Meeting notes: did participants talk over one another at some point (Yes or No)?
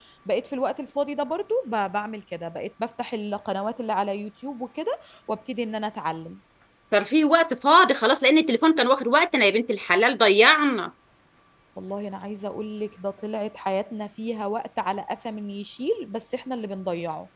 No